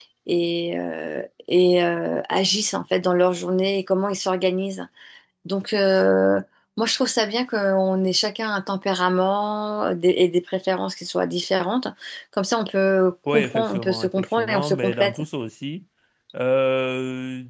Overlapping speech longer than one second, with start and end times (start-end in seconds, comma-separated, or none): 13.3-15.2